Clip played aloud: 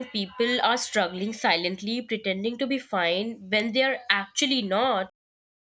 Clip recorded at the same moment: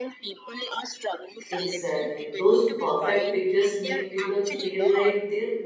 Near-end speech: present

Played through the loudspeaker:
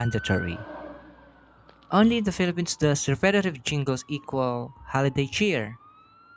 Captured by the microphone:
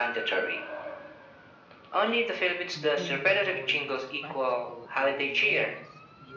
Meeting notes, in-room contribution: present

